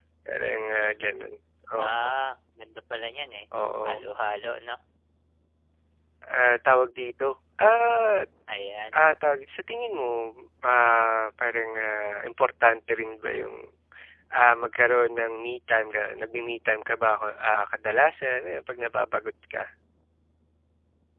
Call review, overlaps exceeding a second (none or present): none